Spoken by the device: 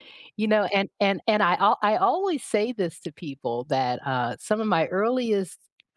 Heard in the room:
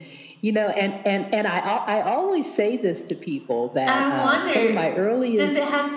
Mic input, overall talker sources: both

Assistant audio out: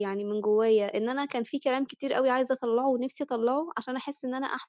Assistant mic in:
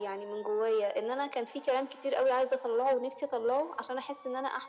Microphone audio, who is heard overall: echo only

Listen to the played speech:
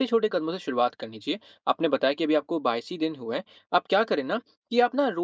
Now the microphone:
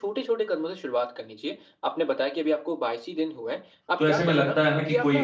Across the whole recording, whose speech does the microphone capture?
both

